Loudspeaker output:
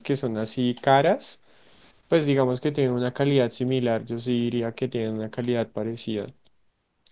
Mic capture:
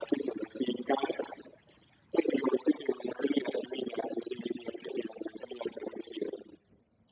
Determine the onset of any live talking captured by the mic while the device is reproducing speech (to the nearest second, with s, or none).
none